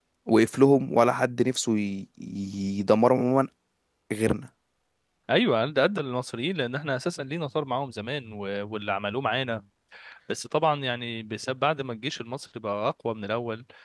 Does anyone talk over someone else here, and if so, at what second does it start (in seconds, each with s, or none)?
none